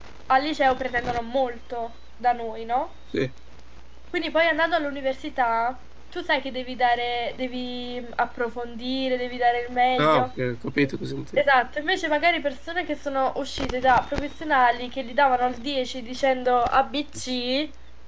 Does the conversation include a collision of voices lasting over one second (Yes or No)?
No